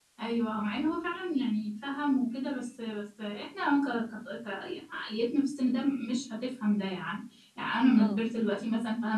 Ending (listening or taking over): listening